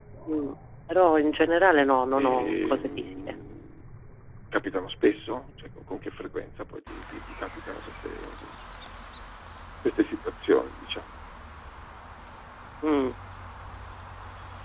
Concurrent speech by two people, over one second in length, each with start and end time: 2.2-3.4

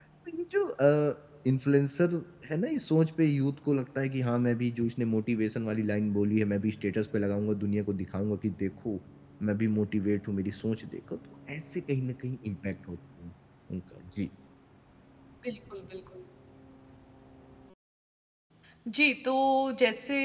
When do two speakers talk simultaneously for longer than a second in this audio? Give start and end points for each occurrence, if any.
none

